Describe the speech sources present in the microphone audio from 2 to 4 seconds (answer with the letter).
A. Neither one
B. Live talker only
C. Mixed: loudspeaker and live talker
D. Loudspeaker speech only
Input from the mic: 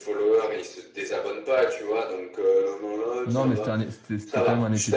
C